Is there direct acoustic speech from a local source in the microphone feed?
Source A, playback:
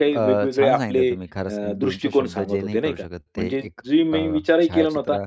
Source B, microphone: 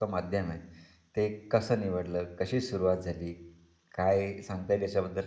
Yes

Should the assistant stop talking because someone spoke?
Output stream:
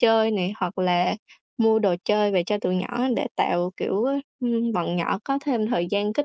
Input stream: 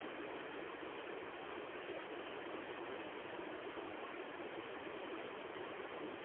No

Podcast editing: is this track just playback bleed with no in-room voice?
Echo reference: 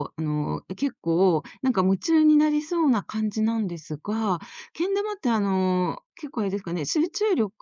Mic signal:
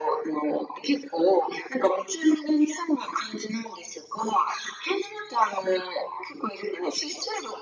Yes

